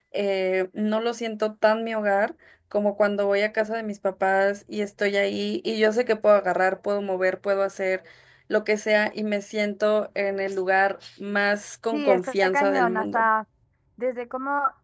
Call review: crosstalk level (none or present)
present